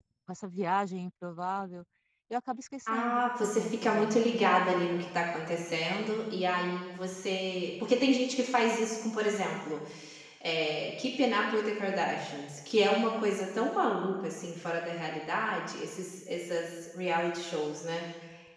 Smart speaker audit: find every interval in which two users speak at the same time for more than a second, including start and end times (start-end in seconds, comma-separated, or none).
2.9-4.6